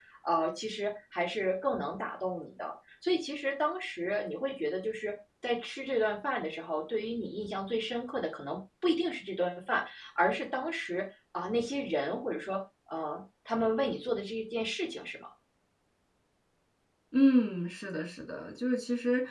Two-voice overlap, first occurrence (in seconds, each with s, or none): none